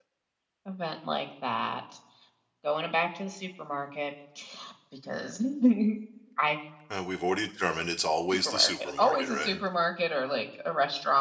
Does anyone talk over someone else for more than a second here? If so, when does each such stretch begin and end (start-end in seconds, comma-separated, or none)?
8.3-9.6